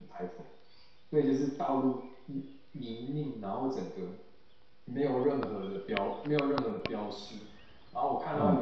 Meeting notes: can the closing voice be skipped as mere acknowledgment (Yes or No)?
Yes